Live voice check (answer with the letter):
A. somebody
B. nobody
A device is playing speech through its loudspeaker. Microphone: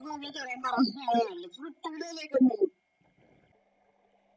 B